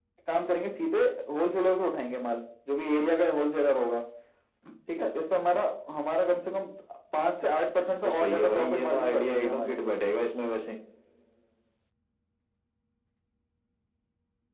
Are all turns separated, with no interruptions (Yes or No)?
No